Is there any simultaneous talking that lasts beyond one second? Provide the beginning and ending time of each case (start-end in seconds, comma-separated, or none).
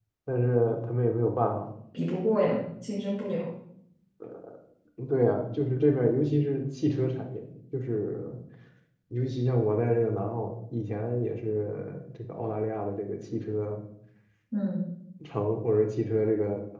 none